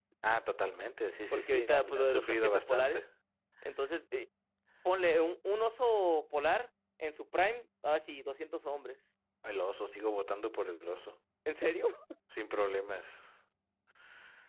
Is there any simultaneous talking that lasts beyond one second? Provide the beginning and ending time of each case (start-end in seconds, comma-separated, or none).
1.3-3.0